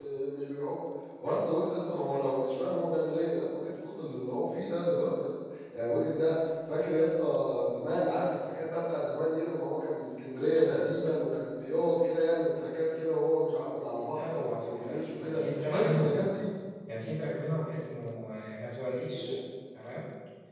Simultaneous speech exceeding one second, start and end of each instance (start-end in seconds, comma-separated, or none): 14.1-16.3